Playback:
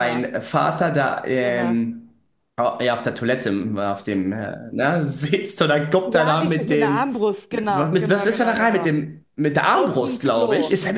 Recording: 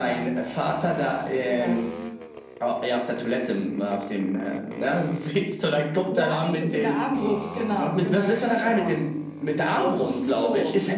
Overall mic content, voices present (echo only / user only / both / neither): echo only